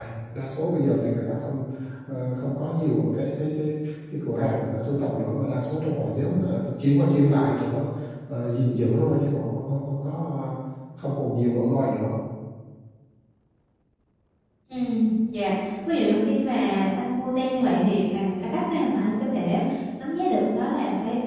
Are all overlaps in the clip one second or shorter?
Yes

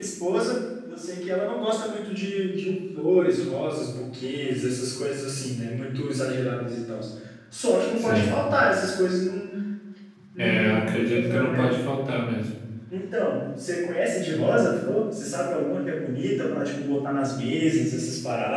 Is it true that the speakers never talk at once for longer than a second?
No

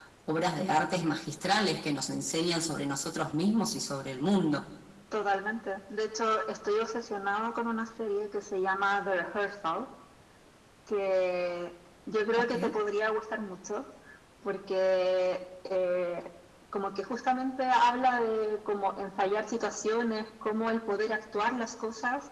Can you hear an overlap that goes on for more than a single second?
No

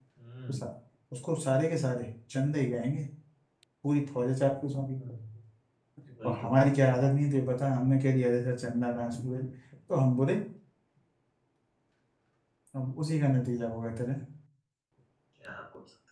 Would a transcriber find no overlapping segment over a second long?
Yes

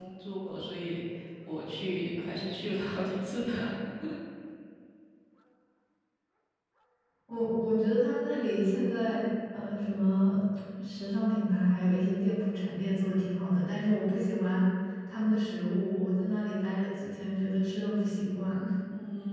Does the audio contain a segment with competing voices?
No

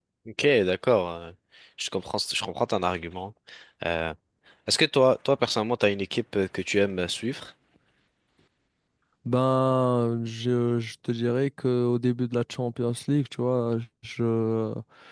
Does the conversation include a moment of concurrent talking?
No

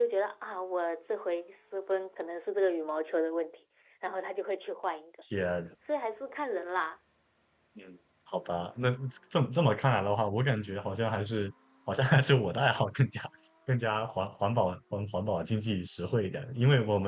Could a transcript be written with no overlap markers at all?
Yes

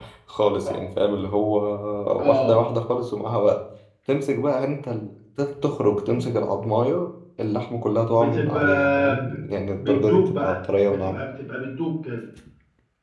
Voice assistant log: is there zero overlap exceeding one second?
No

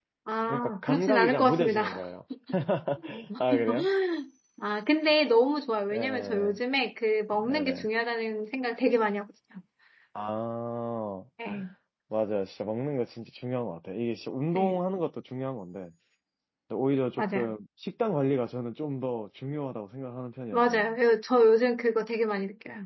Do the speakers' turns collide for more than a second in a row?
Yes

